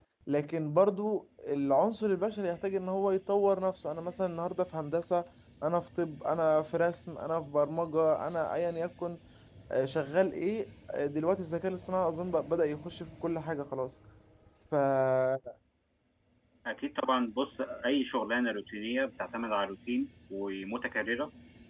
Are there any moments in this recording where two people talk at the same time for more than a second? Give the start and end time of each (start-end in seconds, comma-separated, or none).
none